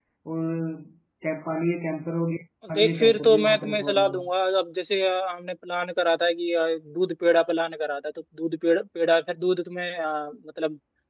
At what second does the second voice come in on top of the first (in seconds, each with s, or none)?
2.6 s